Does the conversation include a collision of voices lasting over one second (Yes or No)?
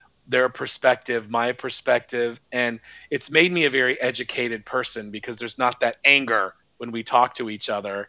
No